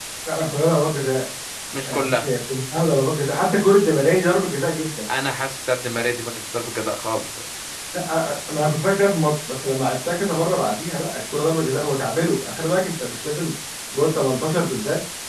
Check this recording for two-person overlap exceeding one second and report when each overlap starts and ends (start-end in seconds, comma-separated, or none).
none